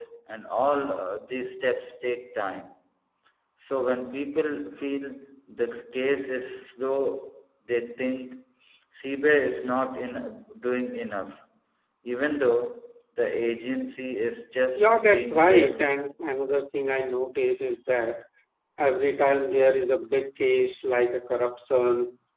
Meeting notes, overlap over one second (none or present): present